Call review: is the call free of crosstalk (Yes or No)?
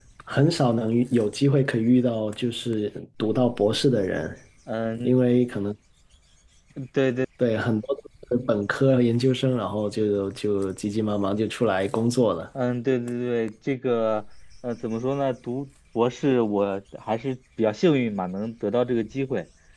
Yes